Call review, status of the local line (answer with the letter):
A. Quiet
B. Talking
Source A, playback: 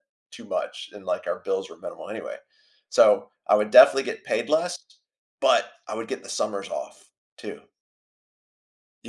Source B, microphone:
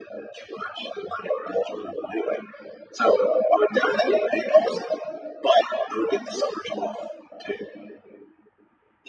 A